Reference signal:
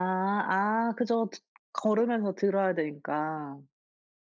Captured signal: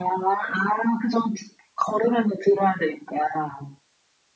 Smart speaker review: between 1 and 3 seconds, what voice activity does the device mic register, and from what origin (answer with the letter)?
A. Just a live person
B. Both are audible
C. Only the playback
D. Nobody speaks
C